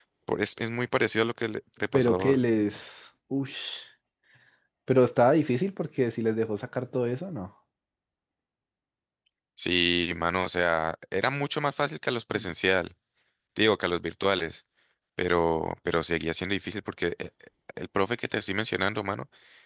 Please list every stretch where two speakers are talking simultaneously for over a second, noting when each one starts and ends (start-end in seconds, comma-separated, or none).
none